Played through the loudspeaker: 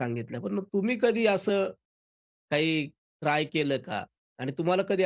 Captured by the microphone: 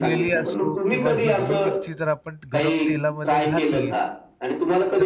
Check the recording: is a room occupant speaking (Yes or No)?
Yes